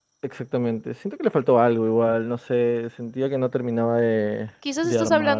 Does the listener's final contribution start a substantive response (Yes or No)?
Yes